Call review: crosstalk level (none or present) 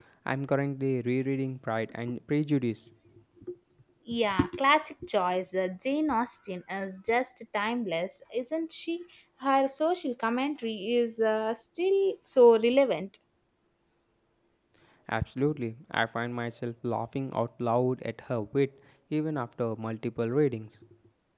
none